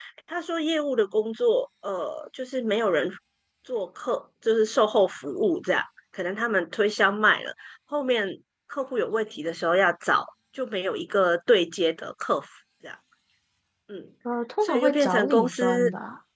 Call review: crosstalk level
present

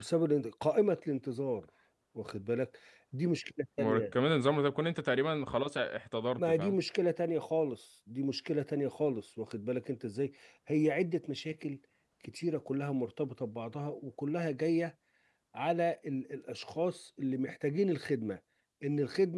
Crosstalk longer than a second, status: none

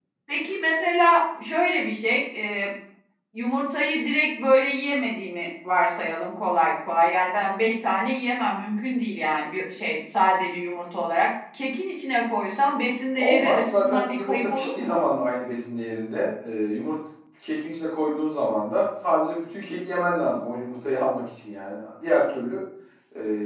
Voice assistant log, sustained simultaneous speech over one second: present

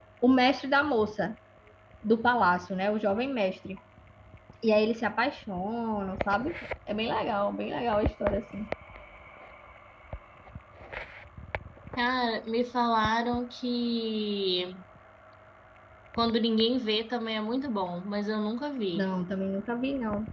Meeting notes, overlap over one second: none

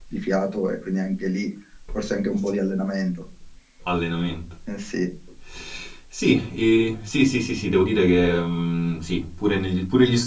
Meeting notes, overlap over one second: none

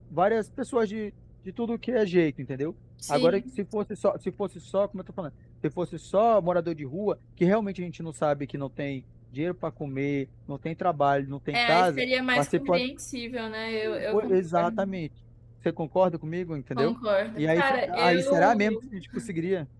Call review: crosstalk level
present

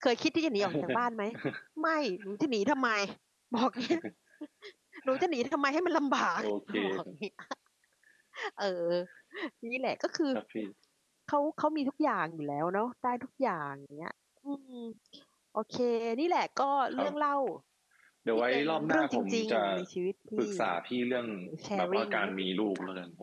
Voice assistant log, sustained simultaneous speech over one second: present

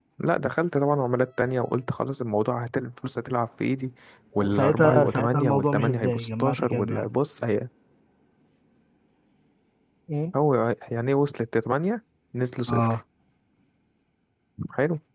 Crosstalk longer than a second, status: present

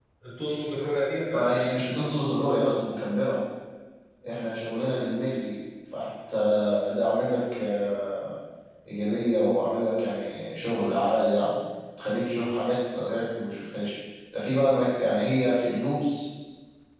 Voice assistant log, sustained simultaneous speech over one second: none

